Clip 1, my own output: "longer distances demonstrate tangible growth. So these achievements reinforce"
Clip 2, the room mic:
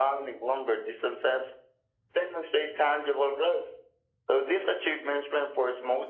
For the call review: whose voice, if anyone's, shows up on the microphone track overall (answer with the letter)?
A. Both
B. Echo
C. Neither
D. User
B